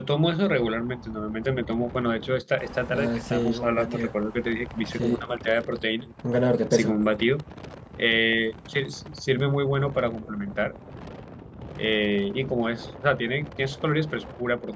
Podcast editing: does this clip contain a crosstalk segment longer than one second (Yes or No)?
Yes